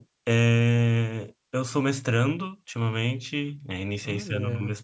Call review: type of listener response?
listening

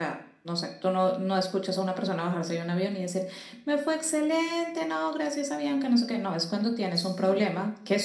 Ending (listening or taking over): listening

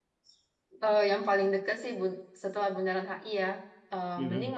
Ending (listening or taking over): listening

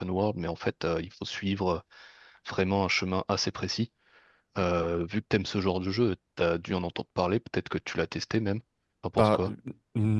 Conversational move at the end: taking over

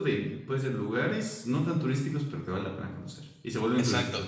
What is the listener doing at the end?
taking over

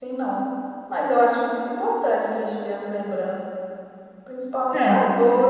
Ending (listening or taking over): listening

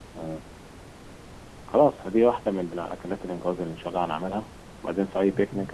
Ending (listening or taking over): listening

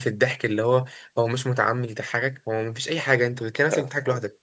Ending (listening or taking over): listening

